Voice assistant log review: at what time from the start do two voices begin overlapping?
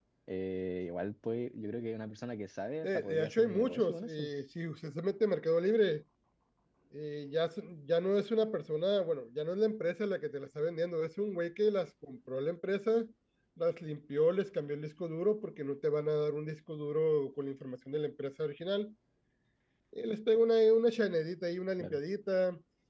2.8 s

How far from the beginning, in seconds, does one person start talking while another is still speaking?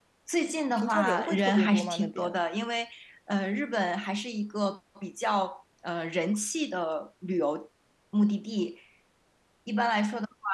0.8 s

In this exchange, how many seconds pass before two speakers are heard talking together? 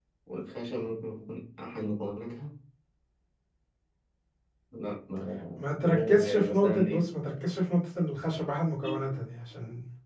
5.8 s

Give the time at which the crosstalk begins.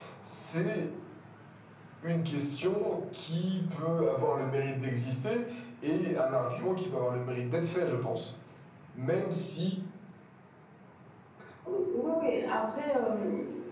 none

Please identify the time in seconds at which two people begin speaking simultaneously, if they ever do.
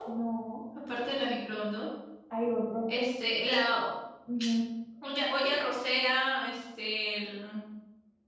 none

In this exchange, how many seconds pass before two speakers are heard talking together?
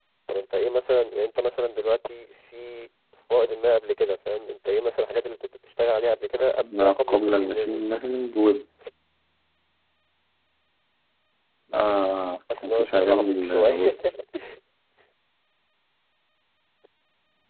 6.6 s

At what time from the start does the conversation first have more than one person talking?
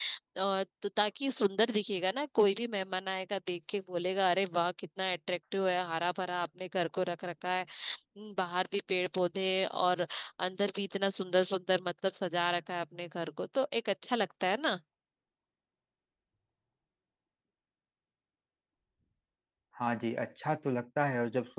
none

